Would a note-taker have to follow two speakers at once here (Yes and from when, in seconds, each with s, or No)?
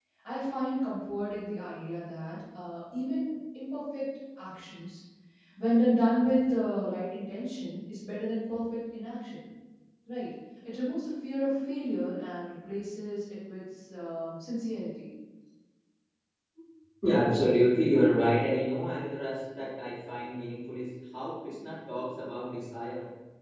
No